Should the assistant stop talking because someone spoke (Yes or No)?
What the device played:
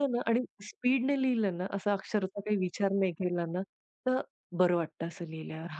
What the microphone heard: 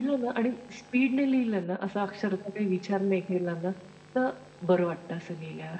No